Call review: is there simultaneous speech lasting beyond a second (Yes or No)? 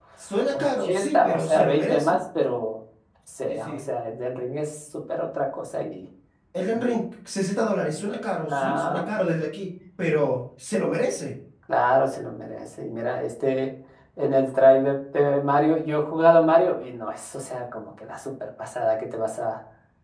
Yes